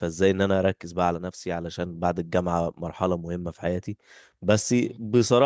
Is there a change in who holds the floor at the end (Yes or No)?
No